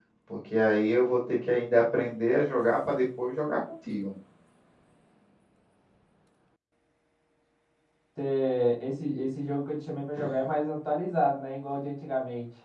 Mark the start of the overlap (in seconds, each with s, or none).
none